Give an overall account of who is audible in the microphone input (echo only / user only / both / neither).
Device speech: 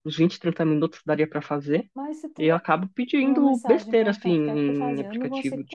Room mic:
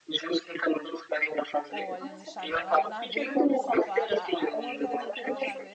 both